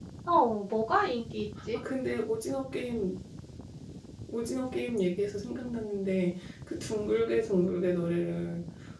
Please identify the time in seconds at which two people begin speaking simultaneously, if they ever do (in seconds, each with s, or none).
none